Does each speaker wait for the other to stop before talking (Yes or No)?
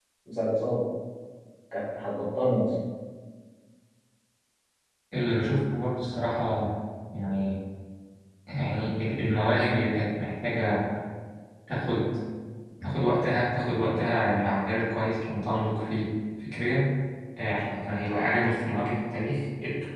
Yes